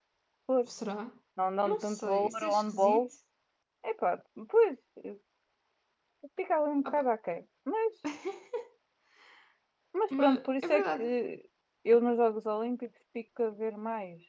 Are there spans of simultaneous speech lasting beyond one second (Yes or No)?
Yes